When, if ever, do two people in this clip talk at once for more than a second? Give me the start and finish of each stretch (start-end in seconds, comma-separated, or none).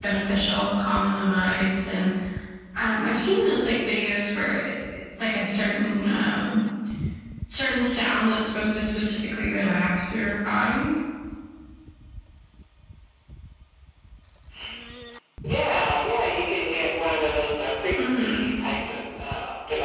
none